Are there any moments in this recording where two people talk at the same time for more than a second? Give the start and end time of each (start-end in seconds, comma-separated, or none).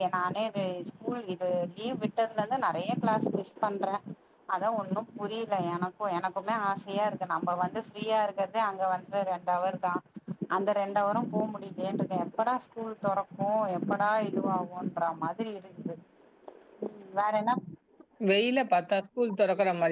none